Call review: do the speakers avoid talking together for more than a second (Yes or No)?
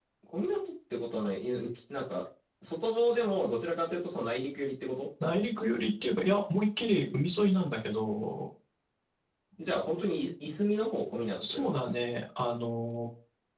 Yes